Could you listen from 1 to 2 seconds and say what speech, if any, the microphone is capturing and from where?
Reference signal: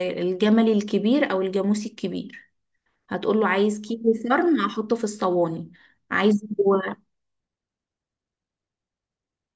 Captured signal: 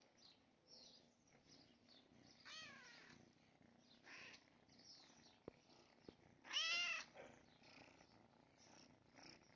neither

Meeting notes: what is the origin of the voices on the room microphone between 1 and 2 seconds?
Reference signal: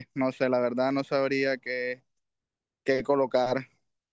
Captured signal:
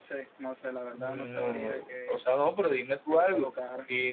both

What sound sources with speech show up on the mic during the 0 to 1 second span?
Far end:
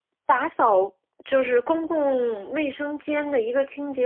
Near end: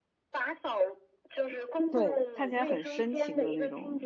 echo only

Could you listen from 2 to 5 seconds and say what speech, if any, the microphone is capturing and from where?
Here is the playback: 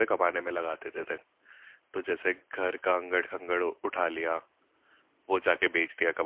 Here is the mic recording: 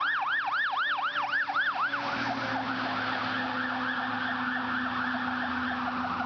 neither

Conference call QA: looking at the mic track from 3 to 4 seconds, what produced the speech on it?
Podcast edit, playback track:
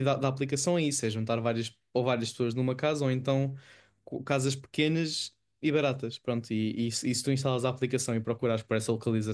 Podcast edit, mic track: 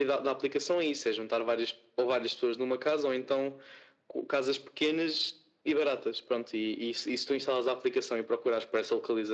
echo only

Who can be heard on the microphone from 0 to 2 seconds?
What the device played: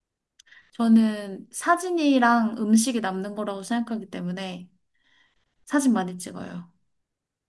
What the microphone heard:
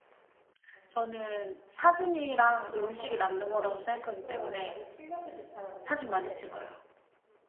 echo only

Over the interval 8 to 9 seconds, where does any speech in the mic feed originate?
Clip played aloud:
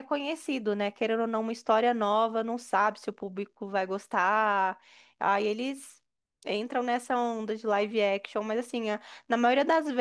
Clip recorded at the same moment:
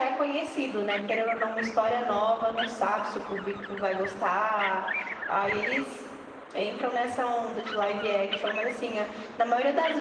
echo only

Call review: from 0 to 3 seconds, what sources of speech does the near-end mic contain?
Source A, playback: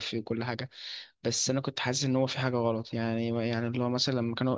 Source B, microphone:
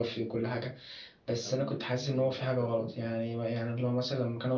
both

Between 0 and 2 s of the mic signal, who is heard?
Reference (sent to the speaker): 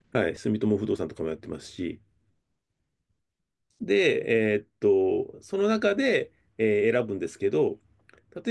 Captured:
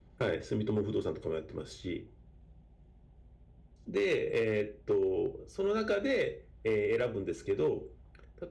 echo only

